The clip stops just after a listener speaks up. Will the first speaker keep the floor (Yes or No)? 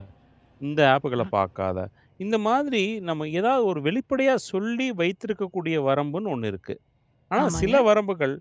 Yes